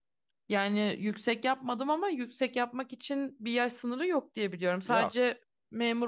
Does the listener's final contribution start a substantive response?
No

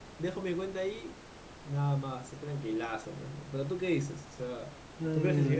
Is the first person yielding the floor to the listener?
Yes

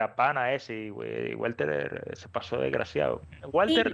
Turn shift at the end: No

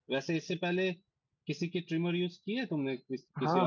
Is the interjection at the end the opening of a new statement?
Yes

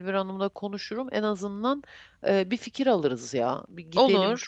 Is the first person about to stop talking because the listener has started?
No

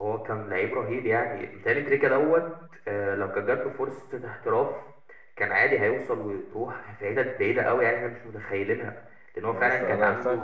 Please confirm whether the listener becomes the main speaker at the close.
Yes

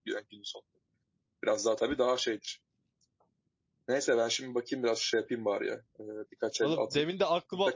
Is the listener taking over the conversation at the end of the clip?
Yes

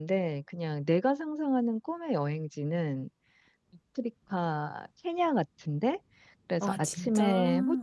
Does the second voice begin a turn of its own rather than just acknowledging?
No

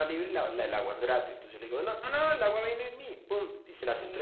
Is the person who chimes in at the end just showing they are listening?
Yes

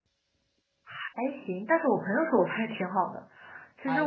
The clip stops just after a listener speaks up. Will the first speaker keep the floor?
No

